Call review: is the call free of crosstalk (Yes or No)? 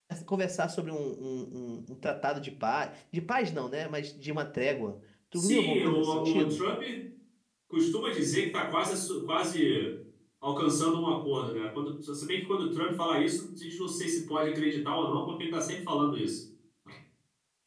No